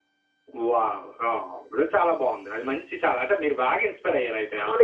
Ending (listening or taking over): taking over